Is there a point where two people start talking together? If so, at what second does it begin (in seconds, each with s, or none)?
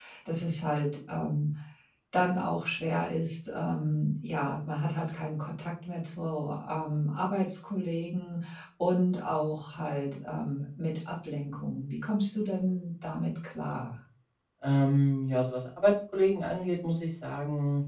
none